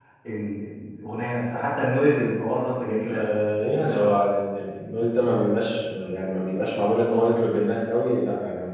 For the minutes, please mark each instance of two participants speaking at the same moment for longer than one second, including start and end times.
none

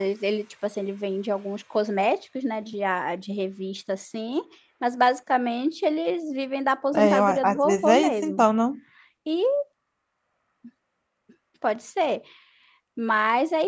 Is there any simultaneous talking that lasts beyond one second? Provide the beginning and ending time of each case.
6.9-8.4

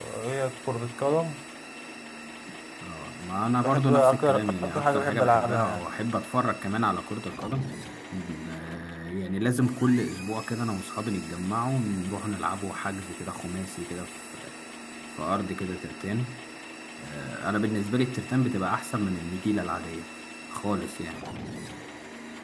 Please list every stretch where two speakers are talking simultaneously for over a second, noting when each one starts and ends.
3.6-5.8

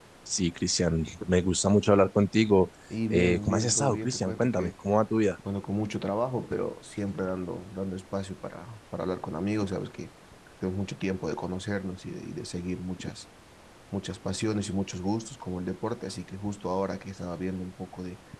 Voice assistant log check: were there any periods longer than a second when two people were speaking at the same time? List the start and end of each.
3.1-4.7

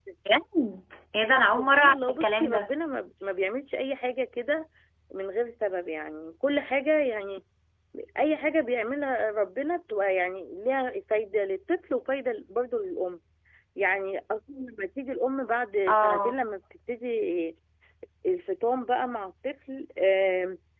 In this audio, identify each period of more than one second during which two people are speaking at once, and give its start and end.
1.3-2.7

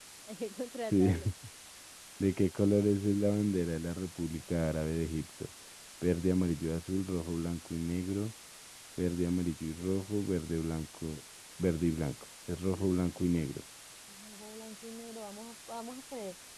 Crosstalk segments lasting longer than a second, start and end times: none

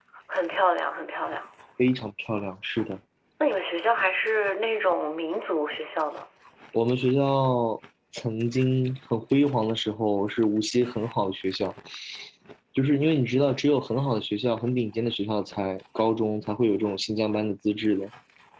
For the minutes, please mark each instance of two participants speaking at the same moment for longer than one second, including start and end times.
none

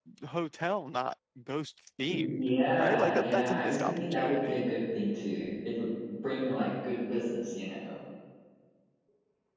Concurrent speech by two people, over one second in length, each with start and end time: 2.1-4.6

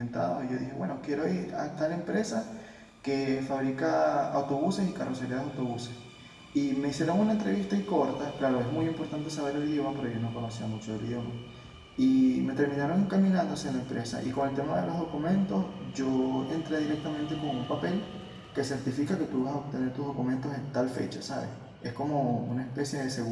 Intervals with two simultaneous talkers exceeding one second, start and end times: none

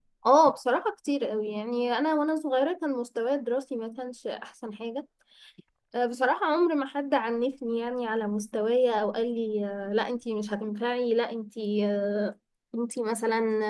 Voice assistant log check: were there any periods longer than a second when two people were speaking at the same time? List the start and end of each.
none

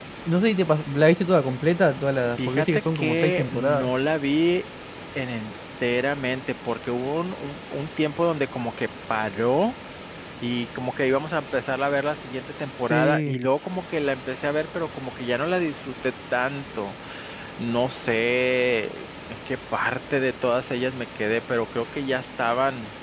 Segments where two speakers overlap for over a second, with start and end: 2.4-3.9

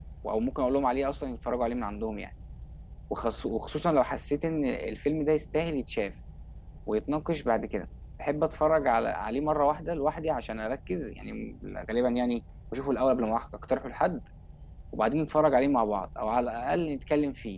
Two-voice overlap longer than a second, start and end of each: none

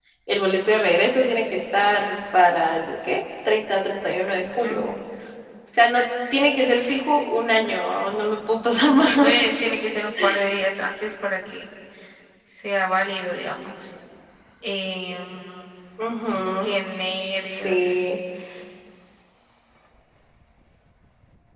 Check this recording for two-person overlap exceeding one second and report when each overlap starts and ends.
none

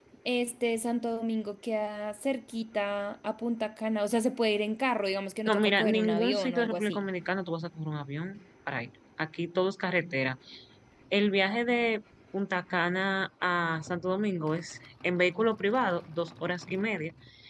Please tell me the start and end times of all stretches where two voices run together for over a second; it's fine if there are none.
5.5-7.0

